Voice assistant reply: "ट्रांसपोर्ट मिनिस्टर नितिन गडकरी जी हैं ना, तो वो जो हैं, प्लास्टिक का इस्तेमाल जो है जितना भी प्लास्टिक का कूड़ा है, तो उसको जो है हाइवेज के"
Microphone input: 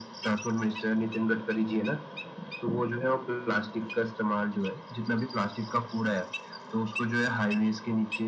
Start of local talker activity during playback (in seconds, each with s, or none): none